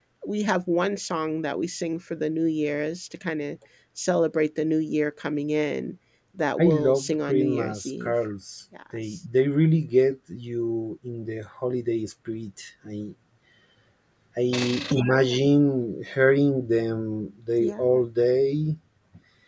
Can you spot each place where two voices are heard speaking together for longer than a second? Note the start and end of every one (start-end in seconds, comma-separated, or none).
6.6-8.1